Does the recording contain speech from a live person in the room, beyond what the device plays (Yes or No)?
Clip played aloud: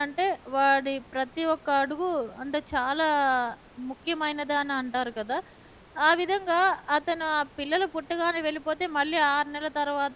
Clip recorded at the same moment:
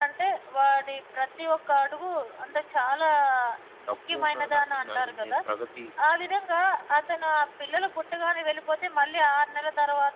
Yes